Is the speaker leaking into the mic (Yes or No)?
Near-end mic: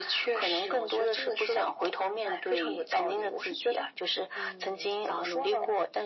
Yes